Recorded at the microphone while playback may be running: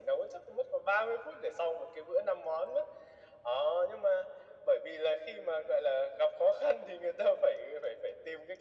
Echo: present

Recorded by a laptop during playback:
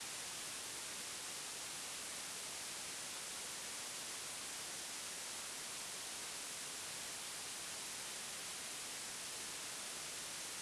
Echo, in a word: none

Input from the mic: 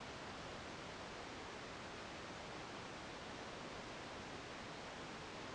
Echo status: none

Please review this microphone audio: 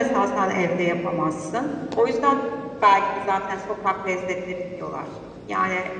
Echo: present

